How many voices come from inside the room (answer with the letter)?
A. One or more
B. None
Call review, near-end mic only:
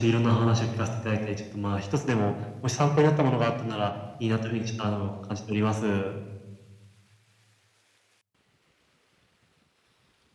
B